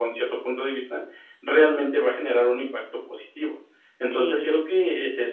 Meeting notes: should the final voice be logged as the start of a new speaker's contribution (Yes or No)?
No